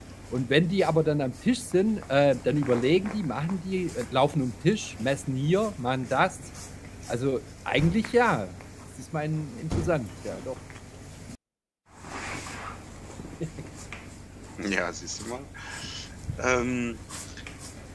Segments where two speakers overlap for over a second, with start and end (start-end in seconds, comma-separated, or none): none